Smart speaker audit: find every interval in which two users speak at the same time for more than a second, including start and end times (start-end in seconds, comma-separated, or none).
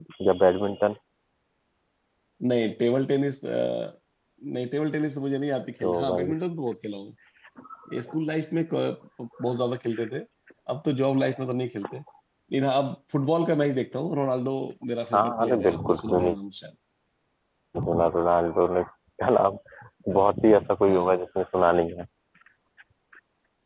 15.1-16.3